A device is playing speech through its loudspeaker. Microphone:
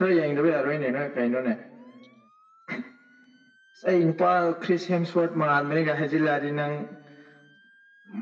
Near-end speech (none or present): none